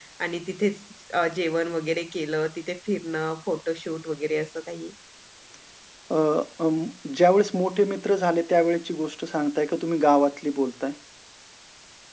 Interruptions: none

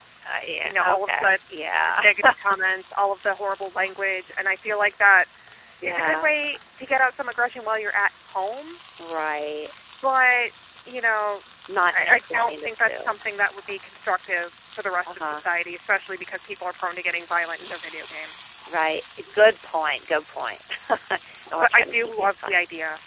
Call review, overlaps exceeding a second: present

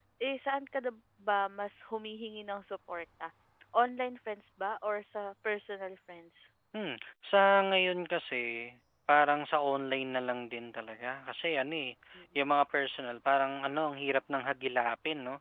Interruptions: none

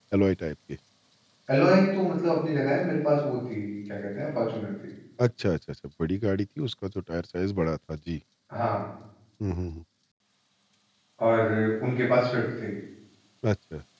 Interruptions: none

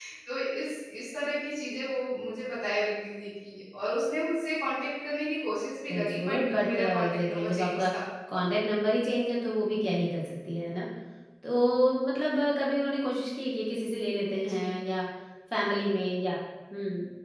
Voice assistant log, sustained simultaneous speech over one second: present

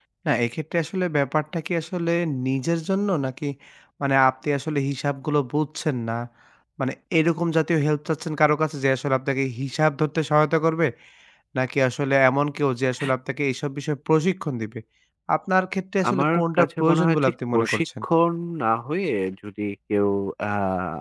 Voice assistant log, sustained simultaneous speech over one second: present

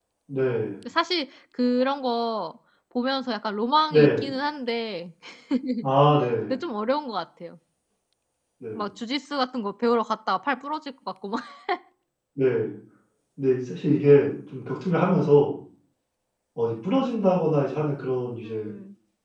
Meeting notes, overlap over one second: none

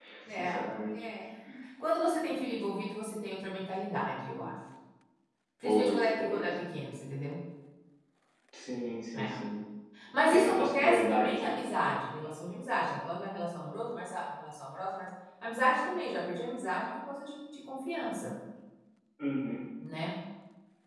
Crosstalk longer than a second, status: present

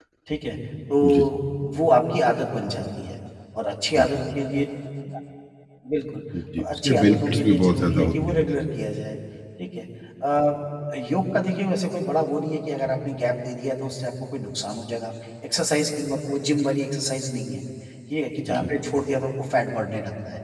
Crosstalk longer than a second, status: present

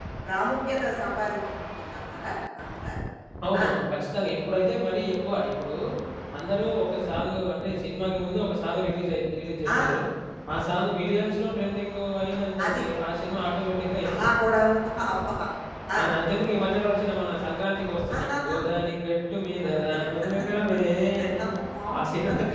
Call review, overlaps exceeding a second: none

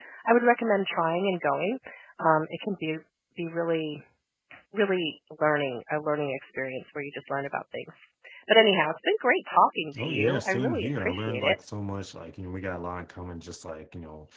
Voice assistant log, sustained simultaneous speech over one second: present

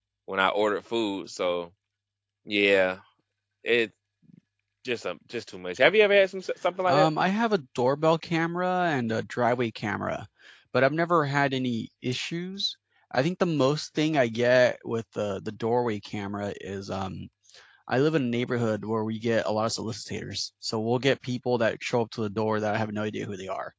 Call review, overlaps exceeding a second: none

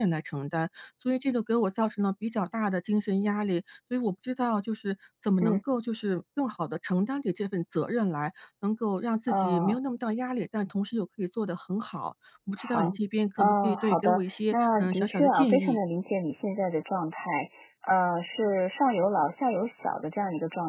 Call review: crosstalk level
present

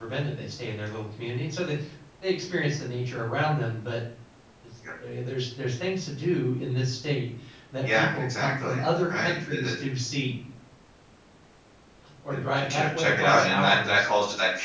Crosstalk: present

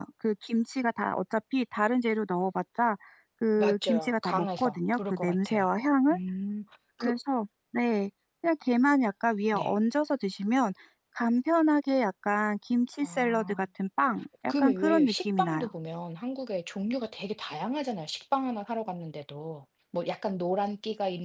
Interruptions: present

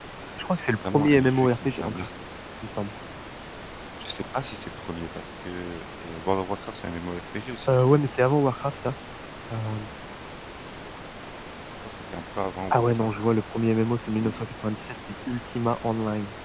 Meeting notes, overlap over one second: present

